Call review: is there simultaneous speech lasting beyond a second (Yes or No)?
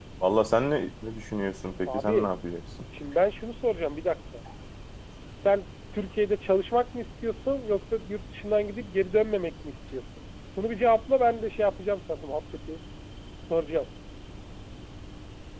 No